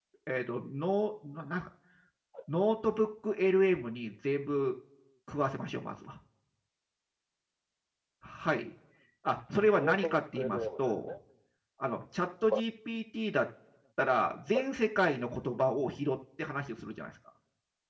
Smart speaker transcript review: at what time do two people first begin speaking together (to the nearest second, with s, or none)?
10 s